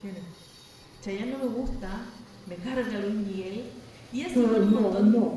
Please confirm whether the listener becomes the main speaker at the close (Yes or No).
Yes